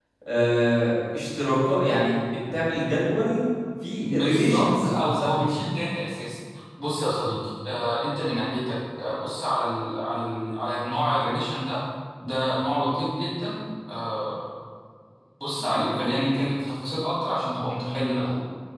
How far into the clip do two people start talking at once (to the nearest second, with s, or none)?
4 s